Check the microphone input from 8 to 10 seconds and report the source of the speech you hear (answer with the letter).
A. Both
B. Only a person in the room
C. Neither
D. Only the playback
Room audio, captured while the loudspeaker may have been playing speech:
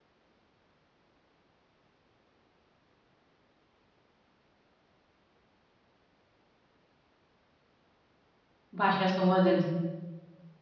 B